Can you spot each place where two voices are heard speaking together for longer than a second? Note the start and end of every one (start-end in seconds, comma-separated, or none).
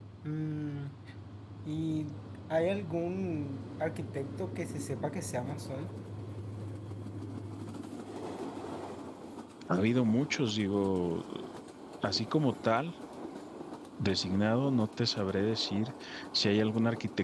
none